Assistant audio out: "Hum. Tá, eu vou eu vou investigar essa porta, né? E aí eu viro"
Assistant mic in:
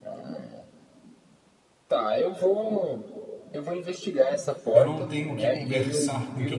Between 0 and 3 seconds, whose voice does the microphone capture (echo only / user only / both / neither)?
echo only